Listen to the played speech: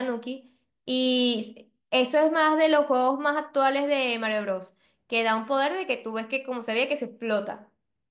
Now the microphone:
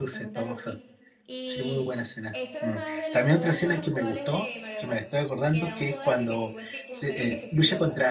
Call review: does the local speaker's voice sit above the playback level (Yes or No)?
Yes